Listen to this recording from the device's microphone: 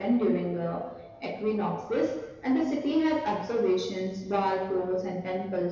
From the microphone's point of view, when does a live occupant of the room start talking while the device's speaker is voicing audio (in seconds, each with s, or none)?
none